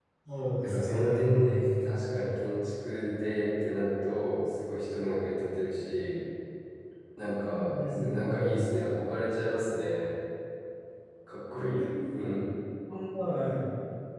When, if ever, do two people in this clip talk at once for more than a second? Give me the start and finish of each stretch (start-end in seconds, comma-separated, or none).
0.5-2.0, 7.4-8.7